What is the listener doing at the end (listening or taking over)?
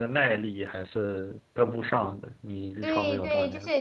taking over